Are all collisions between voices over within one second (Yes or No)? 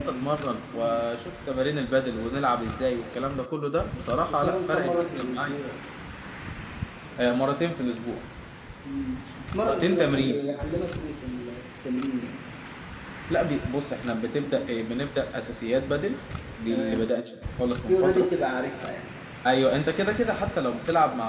No